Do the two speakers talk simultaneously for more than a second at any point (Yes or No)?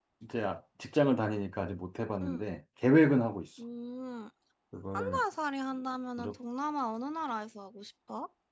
No